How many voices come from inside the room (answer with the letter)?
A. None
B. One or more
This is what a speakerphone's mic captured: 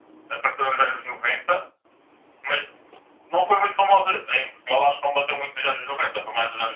A